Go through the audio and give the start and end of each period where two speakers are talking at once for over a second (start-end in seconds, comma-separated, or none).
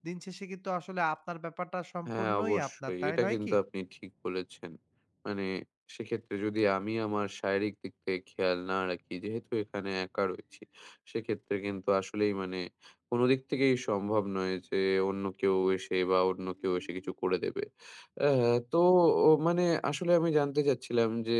2.1-3.5